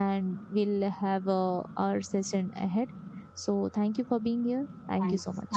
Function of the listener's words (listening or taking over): taking over